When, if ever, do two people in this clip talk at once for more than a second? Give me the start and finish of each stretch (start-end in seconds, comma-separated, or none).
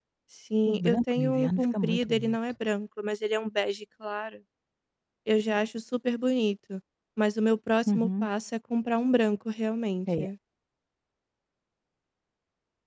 0.7-2.4